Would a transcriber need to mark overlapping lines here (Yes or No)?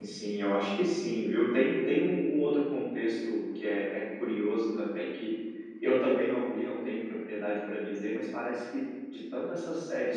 No